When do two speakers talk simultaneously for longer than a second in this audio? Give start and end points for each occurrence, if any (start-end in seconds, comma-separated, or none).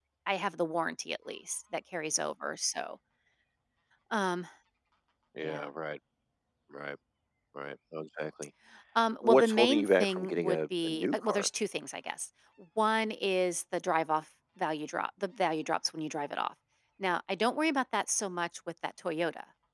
9.2-11.5